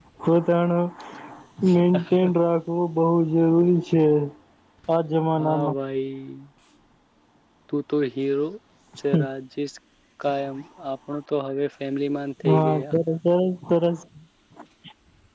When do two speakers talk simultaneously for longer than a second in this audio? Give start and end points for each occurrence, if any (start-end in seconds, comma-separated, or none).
none